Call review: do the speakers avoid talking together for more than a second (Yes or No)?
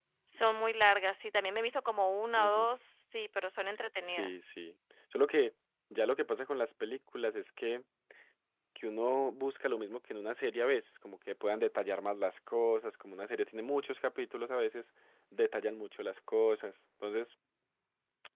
Yes